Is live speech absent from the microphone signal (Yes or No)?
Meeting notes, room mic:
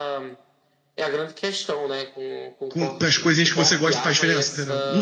No